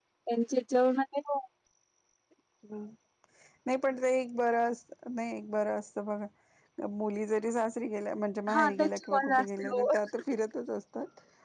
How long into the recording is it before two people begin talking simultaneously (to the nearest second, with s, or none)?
8 s